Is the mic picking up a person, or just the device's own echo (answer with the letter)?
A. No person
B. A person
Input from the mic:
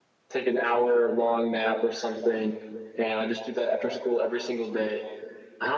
A